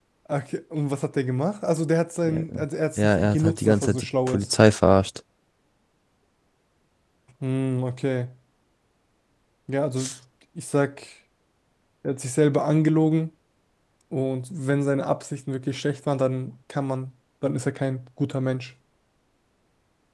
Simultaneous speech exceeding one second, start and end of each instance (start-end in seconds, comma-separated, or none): 3.0-4.5